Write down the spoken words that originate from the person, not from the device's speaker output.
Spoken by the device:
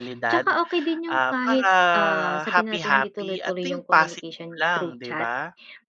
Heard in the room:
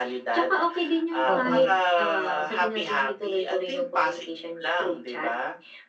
Oo.

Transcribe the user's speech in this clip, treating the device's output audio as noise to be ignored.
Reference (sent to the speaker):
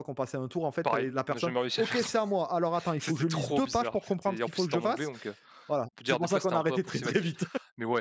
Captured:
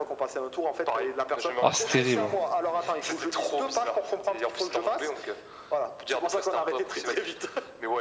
Ah c'est terrible,

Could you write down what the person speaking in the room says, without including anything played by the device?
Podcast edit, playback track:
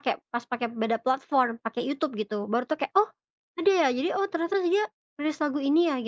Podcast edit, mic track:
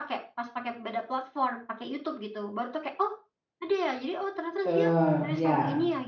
Betul, iya.

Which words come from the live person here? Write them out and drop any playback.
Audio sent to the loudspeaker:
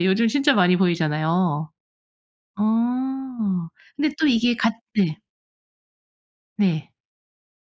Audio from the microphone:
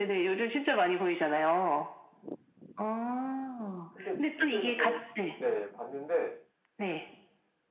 근데 뉴스에서 저도 몇 네 봤는데

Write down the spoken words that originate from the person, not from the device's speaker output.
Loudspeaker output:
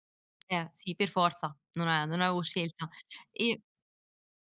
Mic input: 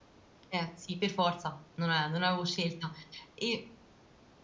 none

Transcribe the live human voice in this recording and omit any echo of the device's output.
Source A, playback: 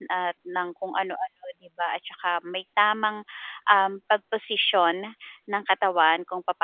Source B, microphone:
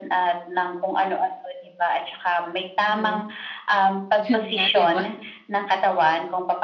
Yung? Yun nga, di ba?

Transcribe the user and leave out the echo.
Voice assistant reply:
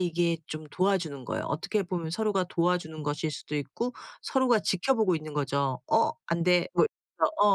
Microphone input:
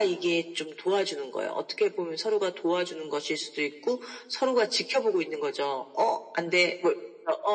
none

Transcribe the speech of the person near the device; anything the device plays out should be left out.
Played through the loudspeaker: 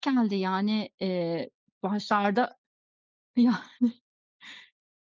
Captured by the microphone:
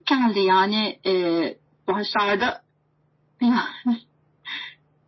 none

